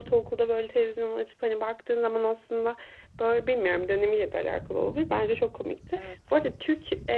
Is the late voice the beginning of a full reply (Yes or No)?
No